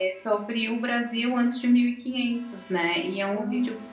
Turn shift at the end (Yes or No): No